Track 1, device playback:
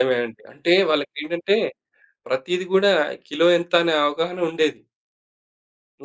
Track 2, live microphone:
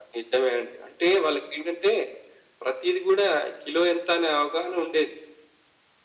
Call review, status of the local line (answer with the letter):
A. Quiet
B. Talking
A